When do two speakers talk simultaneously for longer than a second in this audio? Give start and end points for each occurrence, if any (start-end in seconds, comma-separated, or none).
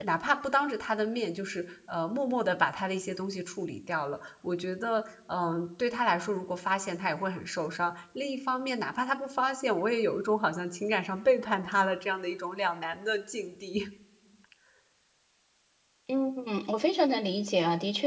none